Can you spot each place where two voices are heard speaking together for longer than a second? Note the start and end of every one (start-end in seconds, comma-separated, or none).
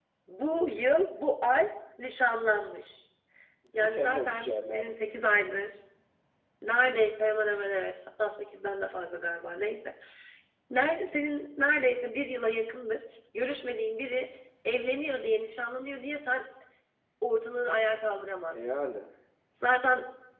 3.8-5.1